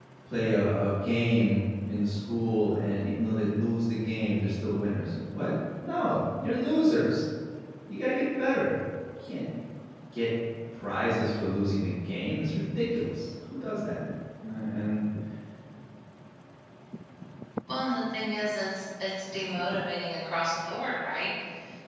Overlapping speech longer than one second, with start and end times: none

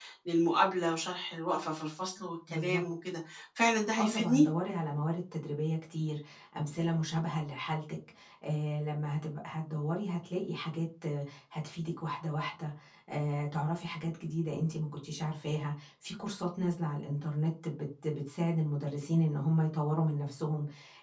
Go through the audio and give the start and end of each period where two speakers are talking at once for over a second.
none

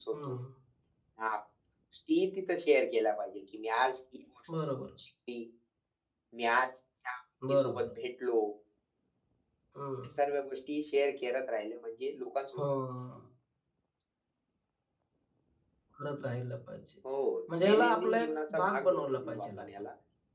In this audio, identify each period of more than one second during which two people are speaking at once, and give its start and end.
17.7-19.7

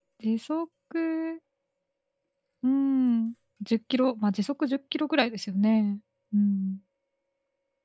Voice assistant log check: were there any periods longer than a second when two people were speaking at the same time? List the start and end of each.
none

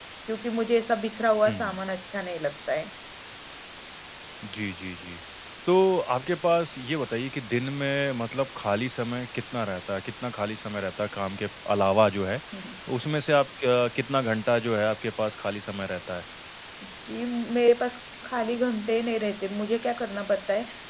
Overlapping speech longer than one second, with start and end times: none

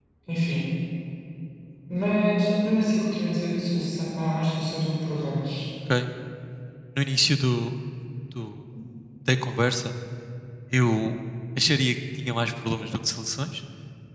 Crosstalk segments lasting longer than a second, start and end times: none

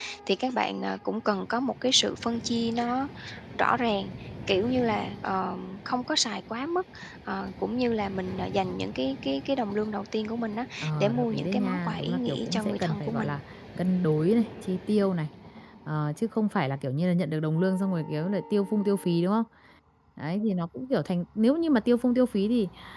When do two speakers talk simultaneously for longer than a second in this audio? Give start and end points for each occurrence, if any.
10.8-13.4

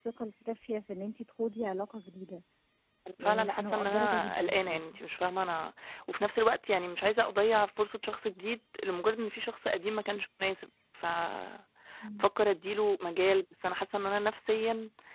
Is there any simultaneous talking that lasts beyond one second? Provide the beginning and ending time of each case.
3.2-4.8

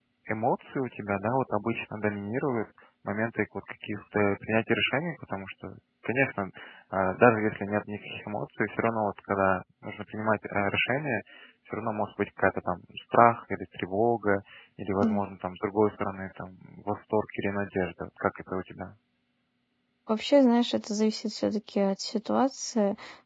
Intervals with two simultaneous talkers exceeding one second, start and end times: none

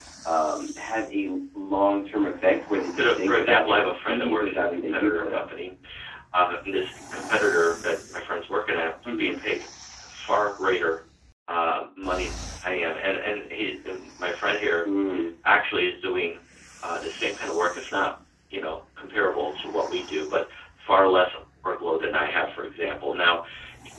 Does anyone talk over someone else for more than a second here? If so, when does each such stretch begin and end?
2.9-5.4

